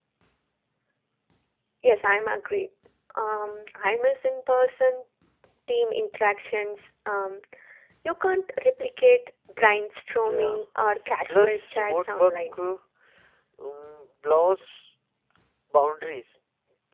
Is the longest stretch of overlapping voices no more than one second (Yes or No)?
No